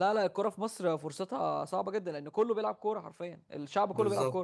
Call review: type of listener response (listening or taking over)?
taking over